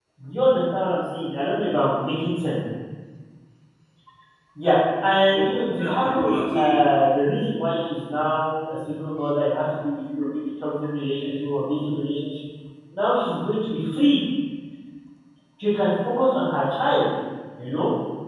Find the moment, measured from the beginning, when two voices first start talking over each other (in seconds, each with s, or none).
5.3 s